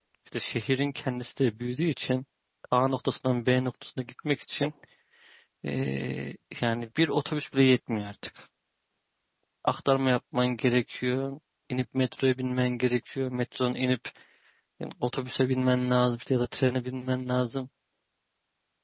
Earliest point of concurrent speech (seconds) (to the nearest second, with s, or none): none